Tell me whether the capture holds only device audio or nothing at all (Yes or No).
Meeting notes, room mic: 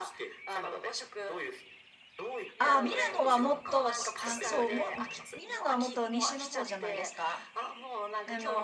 No